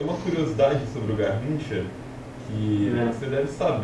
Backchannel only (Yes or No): Yes